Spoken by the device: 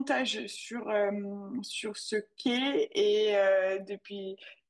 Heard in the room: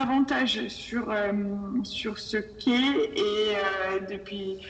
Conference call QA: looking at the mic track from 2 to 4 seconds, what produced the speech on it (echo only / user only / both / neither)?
echo only